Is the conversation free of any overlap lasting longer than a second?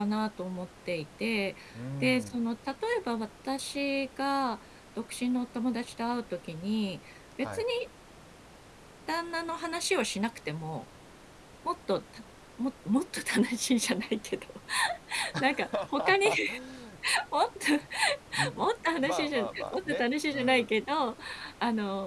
No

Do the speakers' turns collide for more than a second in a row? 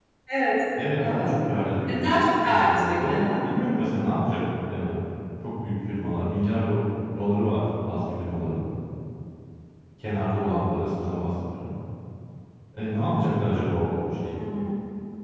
Yes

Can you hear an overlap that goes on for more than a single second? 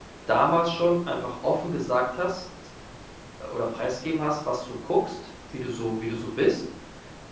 No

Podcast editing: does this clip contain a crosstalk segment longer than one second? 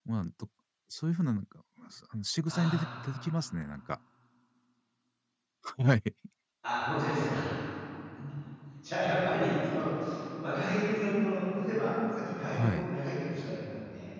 No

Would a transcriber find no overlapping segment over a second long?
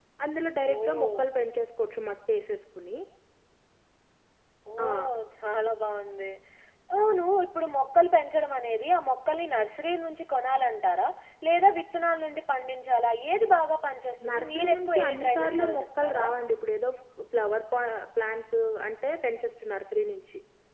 No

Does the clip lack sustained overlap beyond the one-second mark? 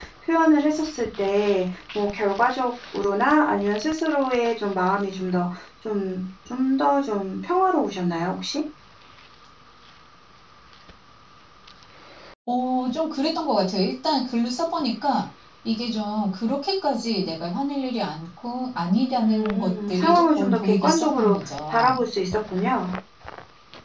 No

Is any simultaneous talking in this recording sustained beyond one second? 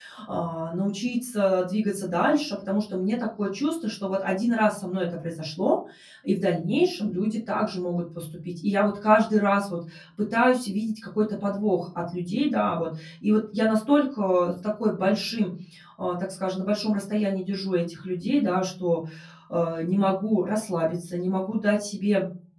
No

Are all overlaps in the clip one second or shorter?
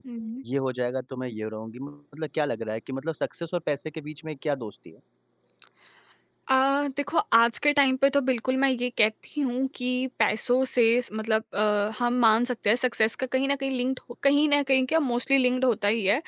Yes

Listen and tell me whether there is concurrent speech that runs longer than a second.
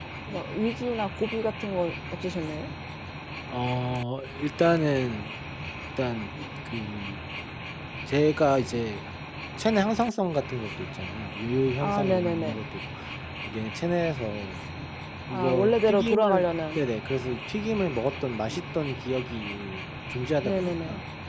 Yes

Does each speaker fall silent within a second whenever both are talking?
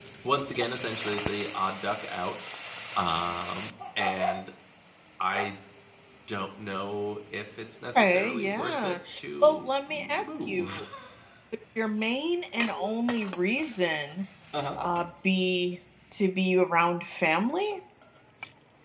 No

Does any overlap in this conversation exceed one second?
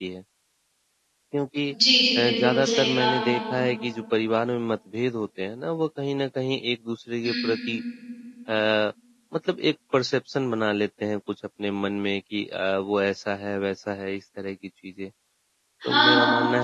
Yes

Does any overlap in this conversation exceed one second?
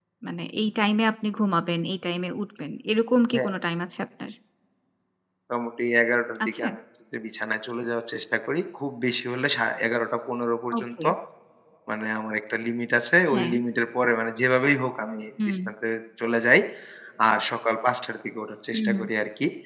No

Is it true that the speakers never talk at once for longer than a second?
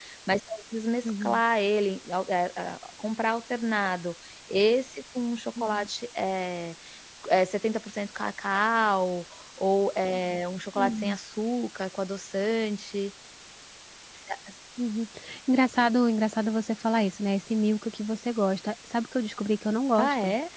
Yes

